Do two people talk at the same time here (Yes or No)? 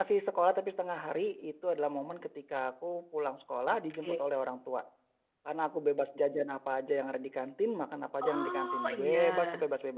Yes